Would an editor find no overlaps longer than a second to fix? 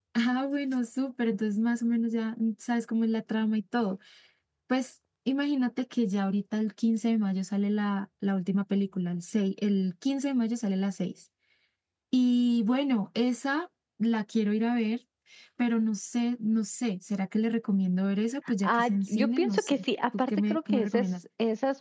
No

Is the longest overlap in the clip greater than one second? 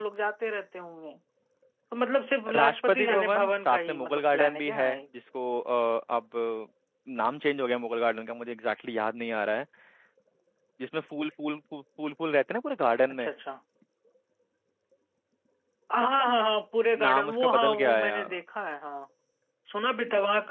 Yes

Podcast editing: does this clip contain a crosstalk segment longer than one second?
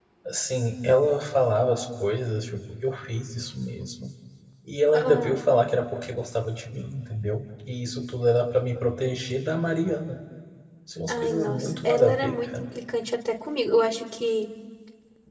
Yes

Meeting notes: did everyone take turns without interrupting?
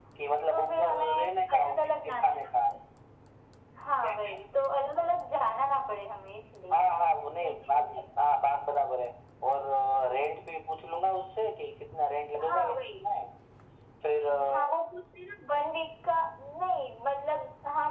No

